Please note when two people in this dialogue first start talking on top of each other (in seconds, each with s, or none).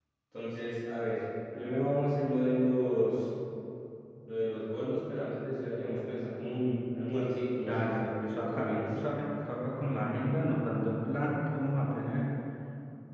7.6 s